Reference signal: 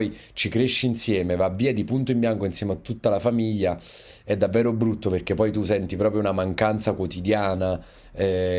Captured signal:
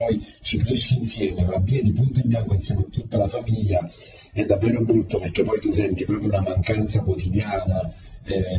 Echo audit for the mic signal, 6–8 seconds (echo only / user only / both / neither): echo only